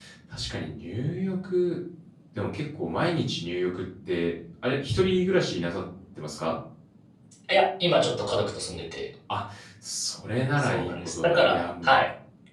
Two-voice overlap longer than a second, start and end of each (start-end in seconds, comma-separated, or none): 10.6-11.9